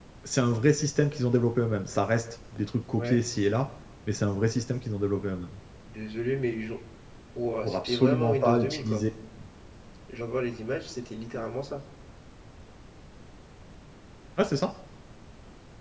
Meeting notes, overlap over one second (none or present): present